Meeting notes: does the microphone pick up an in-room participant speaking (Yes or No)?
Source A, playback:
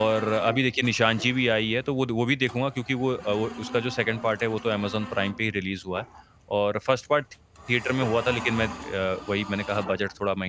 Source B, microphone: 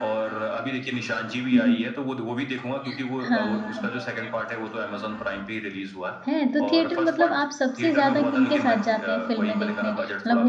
Yes